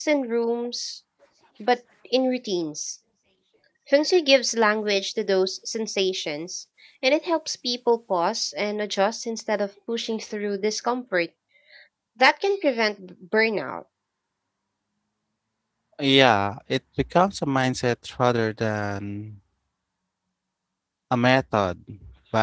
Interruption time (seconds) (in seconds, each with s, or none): none